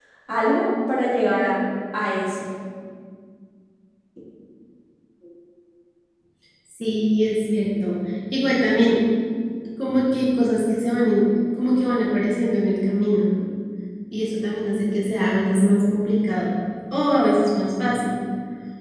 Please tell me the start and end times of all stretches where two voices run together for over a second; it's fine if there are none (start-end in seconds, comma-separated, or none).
none